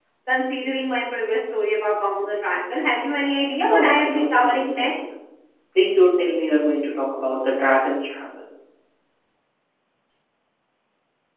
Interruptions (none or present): present